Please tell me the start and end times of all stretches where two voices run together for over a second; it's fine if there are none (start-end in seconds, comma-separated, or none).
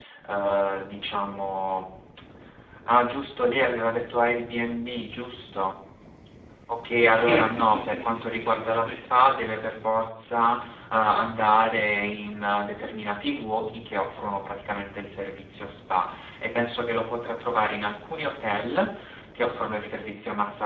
7.3-9.2